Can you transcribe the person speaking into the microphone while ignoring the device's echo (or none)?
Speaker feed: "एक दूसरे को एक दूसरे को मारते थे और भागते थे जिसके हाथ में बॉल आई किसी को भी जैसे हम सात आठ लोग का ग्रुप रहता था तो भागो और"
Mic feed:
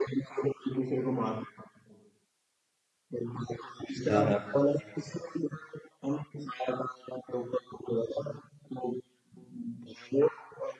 हाँ हाँ